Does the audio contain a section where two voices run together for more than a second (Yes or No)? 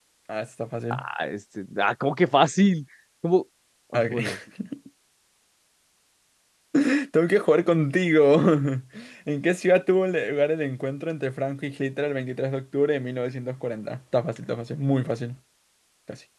No